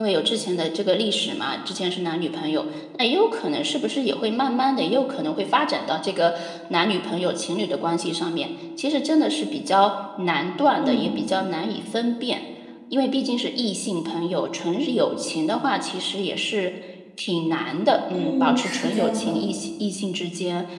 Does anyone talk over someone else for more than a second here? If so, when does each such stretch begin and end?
18.1-19.4

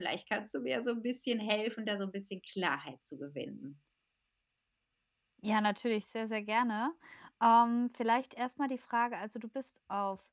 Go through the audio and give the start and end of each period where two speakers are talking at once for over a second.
none

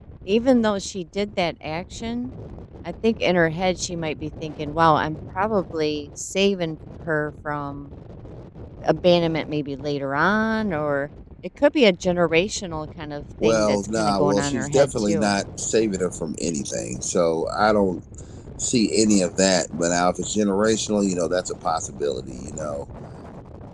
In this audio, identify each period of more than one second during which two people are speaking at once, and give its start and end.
13.4-15.4

